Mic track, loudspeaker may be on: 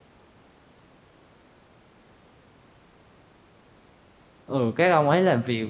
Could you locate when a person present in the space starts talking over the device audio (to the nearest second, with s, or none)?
4 s